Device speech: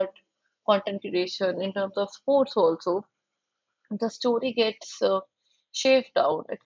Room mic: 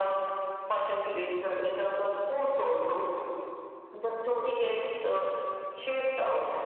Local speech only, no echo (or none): none